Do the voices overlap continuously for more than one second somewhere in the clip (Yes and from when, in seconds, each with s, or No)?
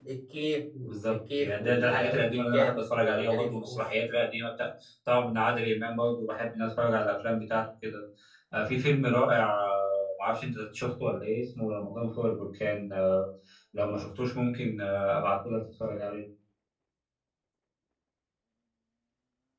Yes, from 1.1 s